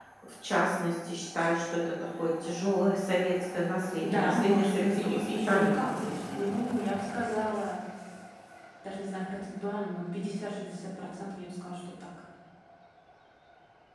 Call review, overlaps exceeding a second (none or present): present